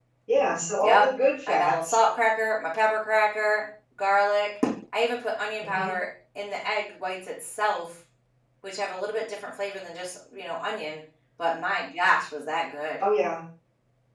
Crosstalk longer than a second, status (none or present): none